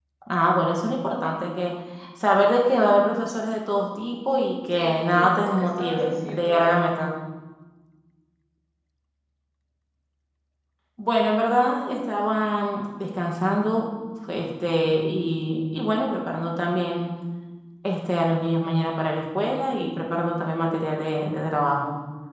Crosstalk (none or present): present